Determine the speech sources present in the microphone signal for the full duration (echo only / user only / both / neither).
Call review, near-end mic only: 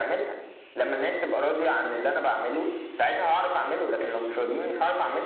echo only